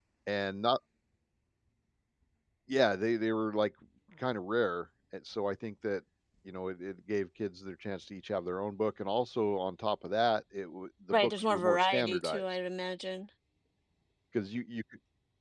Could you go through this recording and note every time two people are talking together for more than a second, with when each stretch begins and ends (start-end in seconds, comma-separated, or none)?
11.1-12.4